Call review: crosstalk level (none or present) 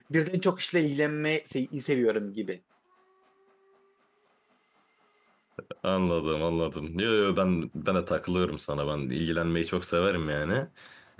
none